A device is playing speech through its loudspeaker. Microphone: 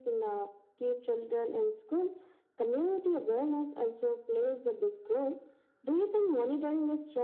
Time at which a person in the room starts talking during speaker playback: none

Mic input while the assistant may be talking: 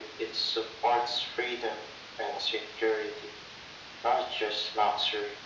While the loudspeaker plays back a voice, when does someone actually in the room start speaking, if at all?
none

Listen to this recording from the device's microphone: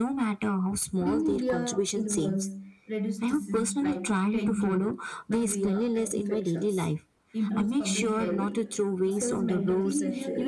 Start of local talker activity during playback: 7.5 s

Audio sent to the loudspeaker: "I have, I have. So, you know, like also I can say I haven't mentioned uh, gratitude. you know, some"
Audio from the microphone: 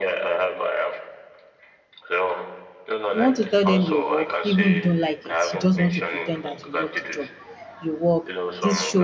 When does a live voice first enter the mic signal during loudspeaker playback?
3.1 s

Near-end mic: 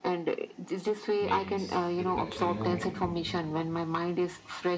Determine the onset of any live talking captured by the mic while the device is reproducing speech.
1.2 s

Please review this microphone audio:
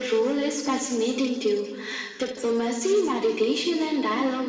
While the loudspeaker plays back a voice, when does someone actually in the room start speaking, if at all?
none

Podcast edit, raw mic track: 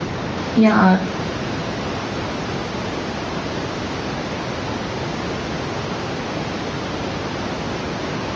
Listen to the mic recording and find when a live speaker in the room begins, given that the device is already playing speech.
0.5 s

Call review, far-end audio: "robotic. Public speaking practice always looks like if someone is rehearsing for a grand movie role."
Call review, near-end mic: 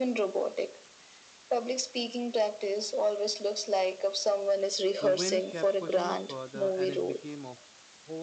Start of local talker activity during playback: 5.0 s

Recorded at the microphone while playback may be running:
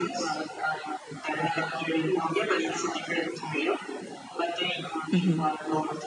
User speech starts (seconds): 5.1 s

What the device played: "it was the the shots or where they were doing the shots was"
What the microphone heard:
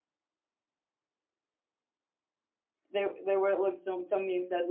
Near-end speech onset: 2.9 s

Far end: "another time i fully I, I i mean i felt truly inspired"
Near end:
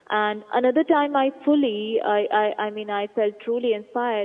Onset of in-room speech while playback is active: none

